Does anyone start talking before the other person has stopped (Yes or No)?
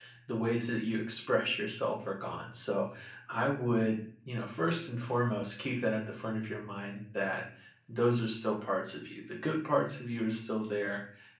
No